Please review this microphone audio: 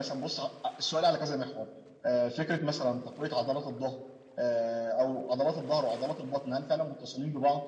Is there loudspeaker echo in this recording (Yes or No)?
Yes